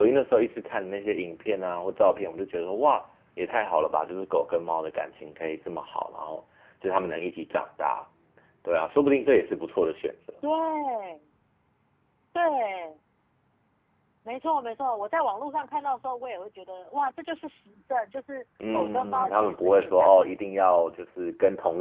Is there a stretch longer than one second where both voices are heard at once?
Yes, from 18.6 s

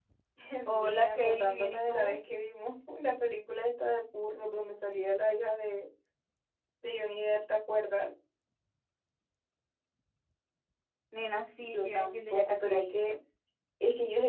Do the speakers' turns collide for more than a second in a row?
Yes, from 0.8 s

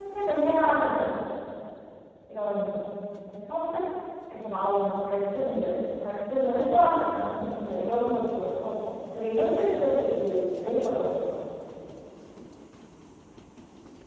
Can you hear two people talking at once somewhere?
No

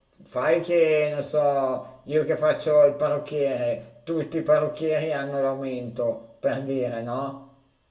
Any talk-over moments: No

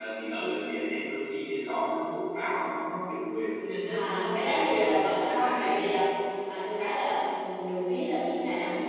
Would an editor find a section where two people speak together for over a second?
Yes, from 3.9 s

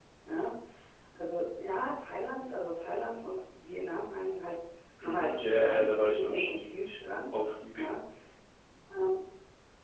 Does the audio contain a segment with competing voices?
Yes, from 5.0 s

